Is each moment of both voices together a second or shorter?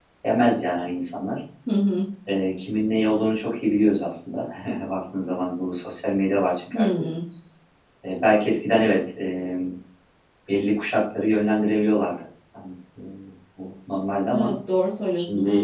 Yes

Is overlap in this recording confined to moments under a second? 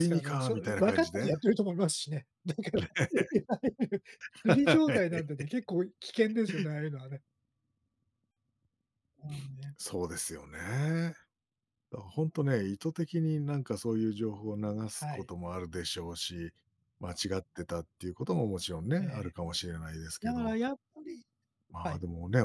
No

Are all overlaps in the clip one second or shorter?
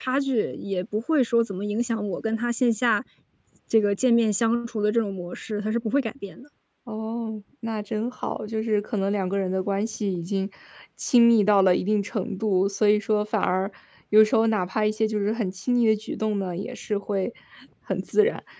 Yes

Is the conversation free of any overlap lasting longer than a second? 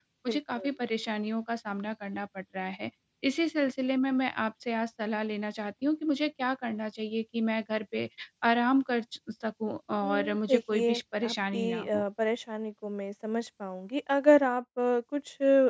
No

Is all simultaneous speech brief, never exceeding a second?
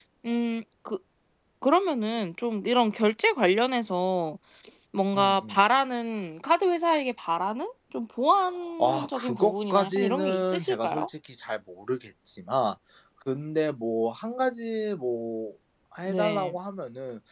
No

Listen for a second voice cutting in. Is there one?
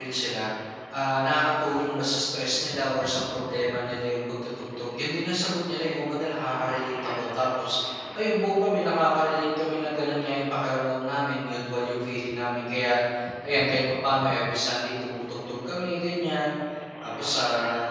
No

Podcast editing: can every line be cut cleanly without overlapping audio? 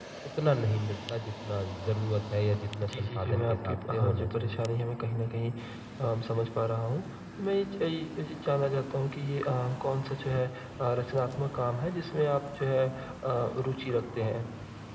No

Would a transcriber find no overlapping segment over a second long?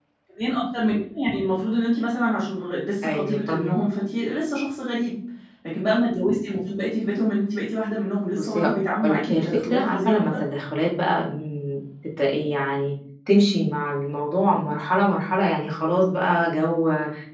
No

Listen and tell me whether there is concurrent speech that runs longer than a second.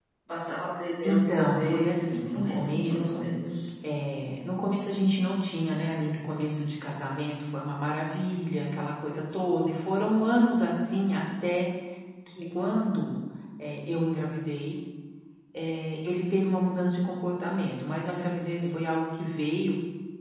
Yes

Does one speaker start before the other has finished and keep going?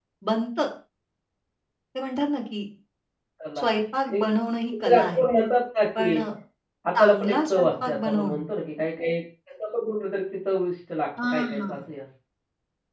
Yes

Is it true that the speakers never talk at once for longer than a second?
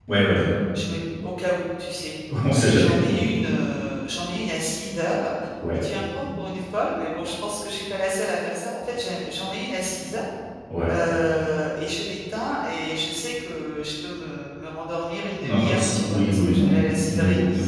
No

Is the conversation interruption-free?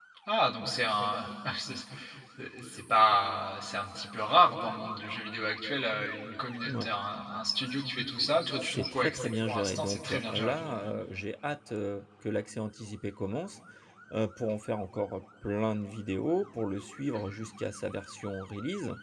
No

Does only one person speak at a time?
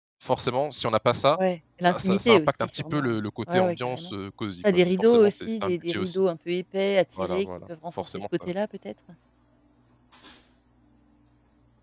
No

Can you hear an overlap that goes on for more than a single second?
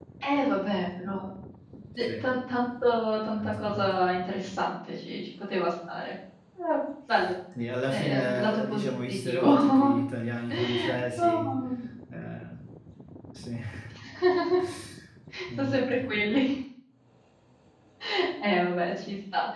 Yes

